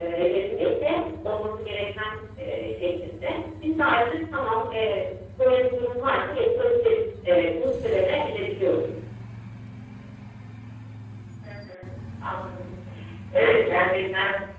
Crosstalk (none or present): none